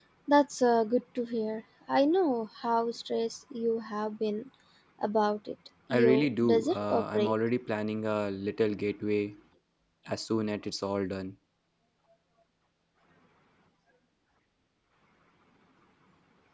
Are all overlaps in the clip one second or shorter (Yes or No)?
No